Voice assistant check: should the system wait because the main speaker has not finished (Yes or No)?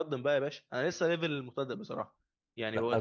No